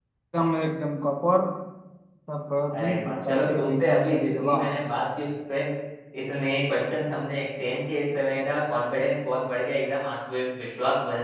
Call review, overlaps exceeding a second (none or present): present